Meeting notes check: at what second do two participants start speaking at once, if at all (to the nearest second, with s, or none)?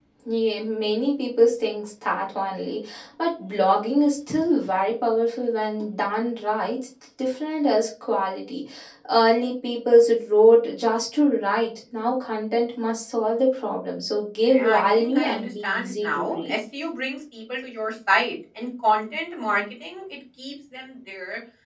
14 s